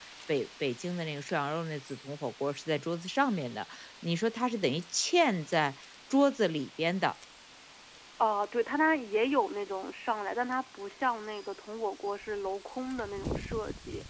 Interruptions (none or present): none